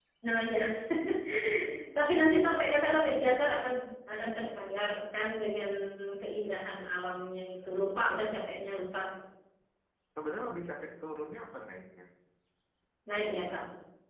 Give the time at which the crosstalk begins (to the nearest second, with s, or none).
none